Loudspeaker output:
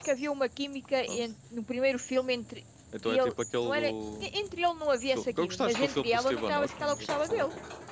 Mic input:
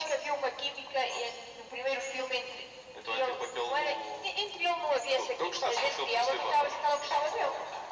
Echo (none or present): present